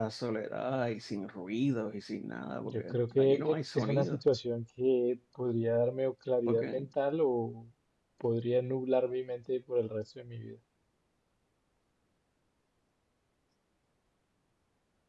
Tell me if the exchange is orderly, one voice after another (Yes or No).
No